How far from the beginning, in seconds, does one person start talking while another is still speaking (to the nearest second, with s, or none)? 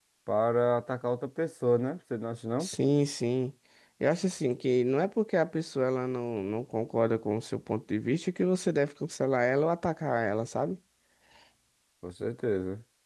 none